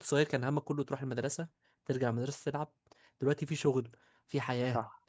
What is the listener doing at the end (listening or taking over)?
listening